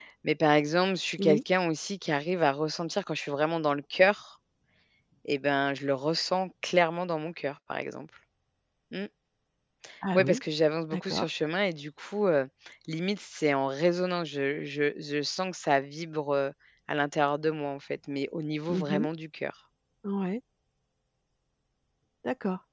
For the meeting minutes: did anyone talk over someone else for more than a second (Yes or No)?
No